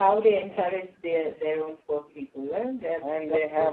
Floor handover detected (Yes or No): Yes